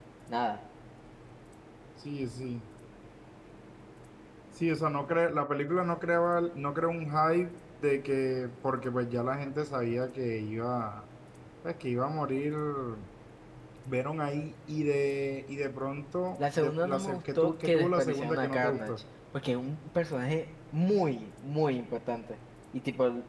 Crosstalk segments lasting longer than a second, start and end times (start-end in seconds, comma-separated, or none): 16.6-18.9